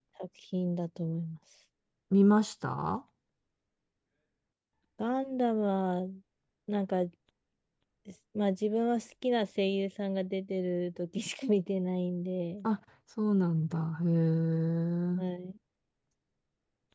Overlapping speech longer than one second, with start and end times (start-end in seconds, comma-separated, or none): none